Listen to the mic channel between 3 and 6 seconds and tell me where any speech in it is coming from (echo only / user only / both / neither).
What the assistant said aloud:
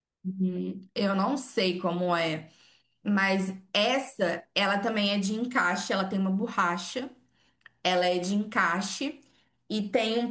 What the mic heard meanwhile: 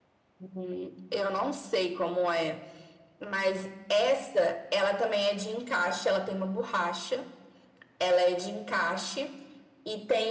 echo only